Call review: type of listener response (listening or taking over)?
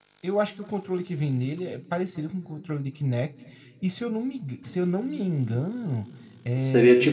taking over